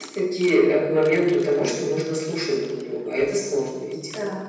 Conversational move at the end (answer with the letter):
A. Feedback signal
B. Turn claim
B